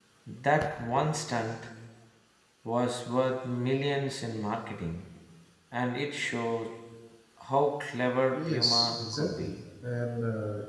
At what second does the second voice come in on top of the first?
8 s

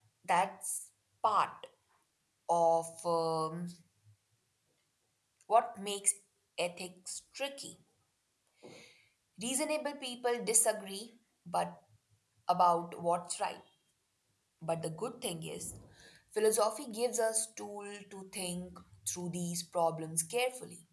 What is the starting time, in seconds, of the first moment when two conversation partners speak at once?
none

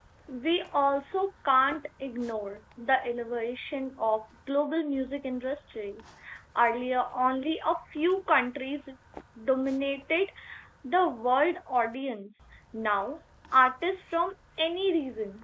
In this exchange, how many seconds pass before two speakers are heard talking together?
none

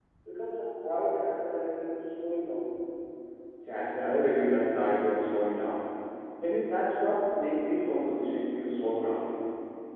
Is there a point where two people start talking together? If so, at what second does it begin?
none

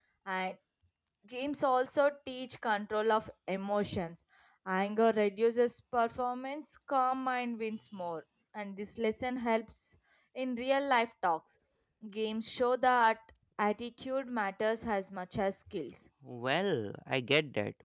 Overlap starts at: none

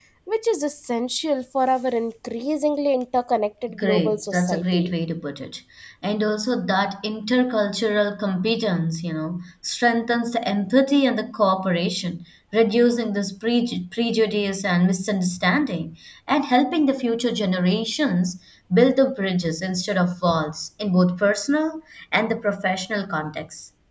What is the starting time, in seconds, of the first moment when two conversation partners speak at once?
4 s

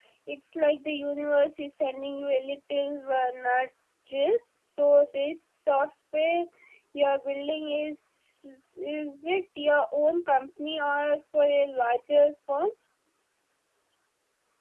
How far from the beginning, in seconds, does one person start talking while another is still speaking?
none

